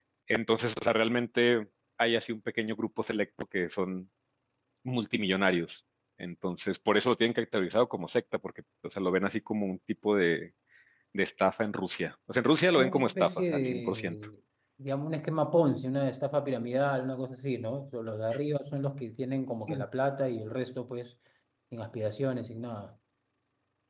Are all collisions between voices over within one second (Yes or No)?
No